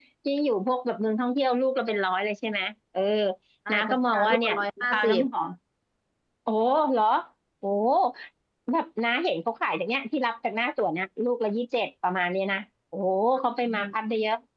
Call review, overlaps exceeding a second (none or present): present